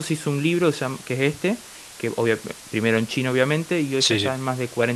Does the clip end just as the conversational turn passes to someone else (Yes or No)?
No